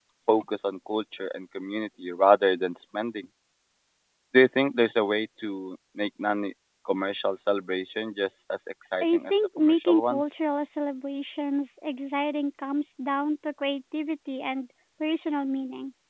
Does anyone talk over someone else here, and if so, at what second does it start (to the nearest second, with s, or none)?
9 s